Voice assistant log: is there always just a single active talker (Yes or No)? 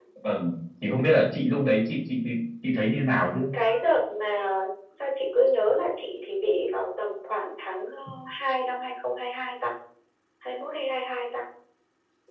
Yes